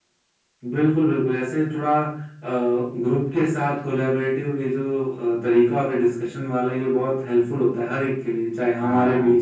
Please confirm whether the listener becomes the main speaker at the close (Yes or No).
No